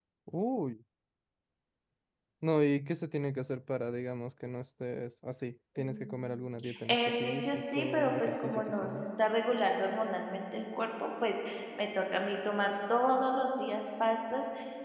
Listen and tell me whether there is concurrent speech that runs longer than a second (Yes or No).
Yes